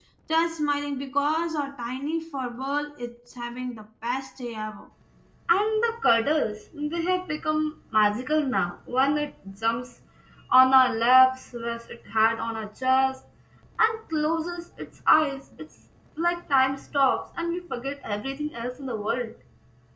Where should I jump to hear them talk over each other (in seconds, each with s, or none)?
none